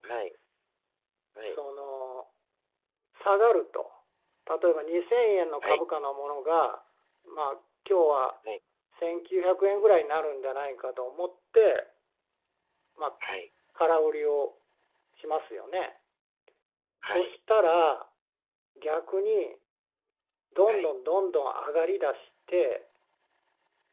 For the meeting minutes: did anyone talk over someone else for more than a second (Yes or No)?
No